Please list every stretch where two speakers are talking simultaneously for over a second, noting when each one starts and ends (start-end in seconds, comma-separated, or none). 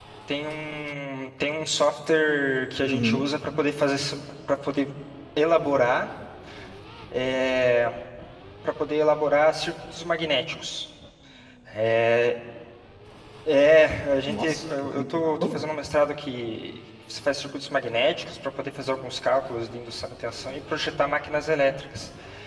14.3-15.6